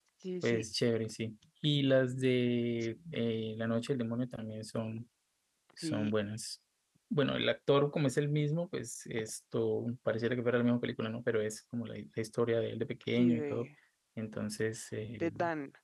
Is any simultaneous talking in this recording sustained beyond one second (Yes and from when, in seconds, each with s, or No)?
No